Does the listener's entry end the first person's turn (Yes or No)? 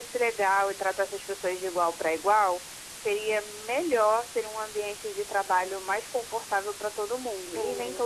Yes